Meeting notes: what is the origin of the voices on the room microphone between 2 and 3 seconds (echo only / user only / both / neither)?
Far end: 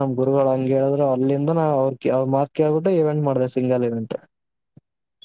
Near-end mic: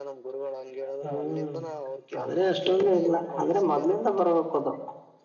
both